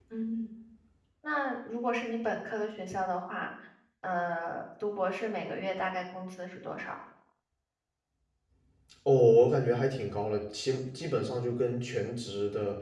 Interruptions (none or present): none